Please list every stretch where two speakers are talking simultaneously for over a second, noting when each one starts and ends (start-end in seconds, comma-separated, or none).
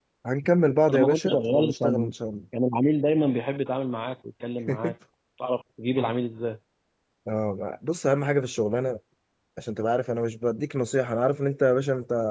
0.9-2.1